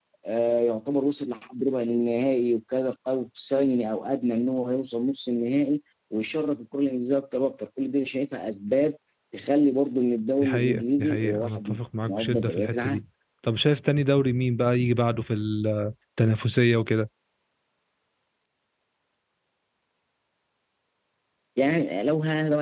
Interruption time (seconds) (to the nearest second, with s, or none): 10 s